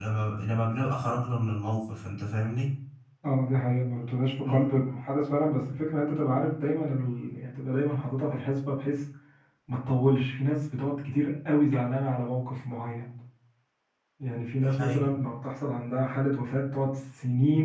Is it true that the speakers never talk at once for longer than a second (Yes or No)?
Yes